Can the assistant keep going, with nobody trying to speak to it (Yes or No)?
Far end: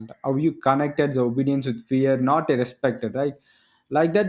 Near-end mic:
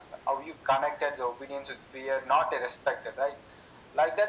Yes